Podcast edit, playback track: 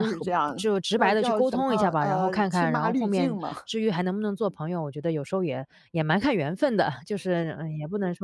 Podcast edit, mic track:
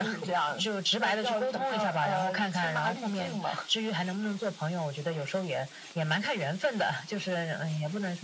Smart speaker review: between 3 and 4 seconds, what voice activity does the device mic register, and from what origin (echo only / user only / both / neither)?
echo only